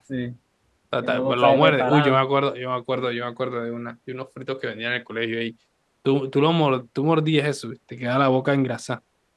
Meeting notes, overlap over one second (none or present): present